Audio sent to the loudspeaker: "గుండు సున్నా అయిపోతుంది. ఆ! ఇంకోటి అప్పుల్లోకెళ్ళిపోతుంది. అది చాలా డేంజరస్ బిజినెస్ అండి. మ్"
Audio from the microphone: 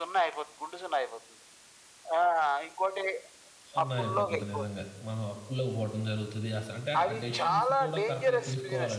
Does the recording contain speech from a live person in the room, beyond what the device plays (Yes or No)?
Yes